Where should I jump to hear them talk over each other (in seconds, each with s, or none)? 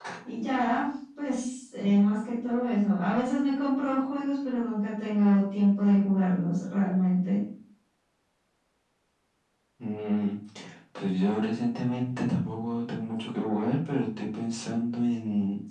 none